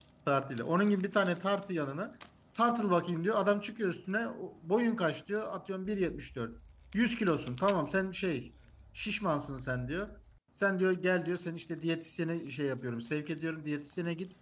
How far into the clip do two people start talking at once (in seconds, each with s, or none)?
none